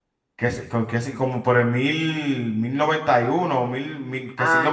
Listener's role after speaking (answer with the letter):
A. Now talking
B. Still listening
A